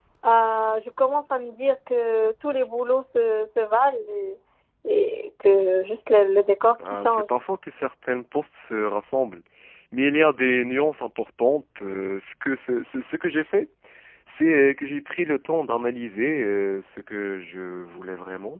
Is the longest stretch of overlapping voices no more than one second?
Yes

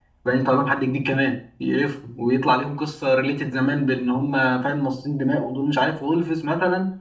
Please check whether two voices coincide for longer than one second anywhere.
No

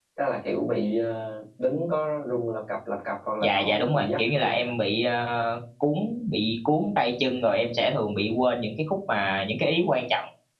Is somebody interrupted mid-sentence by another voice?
Yes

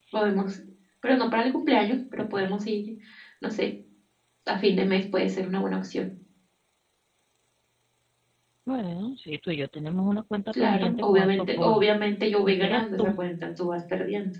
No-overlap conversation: No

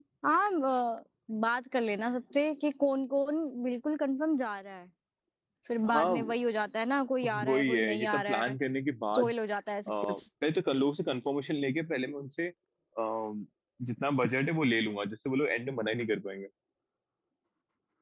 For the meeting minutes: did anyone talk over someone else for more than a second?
Yes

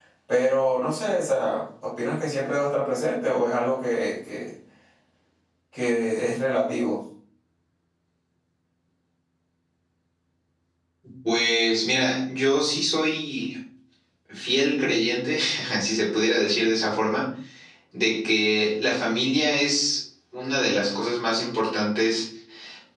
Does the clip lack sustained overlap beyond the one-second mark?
Yes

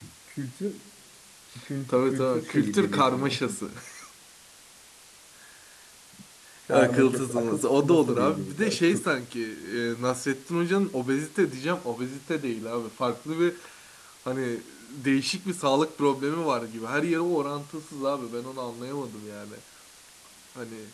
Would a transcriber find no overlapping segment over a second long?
No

